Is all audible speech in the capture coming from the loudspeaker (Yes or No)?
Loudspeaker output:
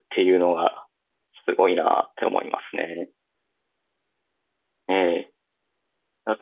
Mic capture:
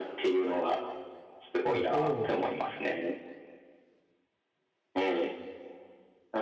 No